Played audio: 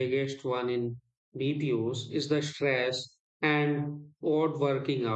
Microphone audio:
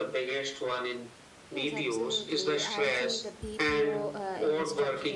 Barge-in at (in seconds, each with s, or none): 1.5 s